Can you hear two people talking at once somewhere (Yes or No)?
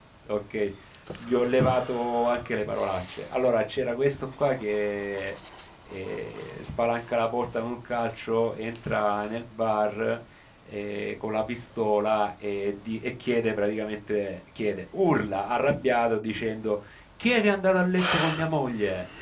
No